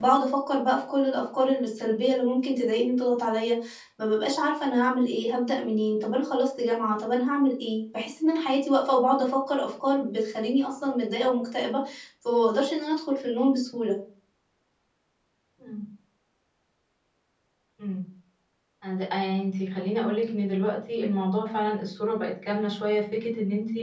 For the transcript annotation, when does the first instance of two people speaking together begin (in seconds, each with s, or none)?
none